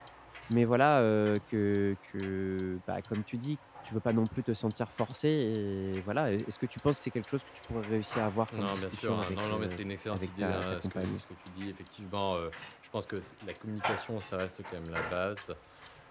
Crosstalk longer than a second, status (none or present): present